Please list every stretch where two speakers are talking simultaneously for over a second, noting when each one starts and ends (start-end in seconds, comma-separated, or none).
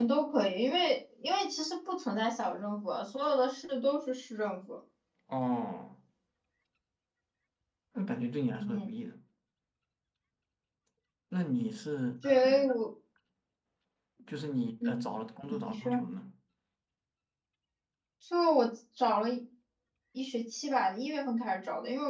none